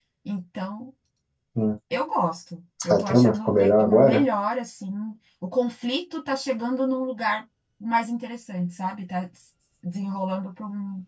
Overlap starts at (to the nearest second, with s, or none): 3 s